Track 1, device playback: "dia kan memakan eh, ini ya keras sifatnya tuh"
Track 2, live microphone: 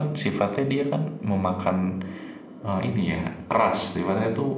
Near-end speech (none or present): none